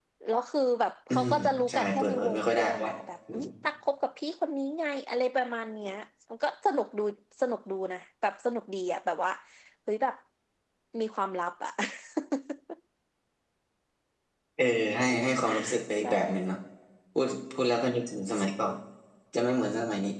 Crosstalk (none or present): present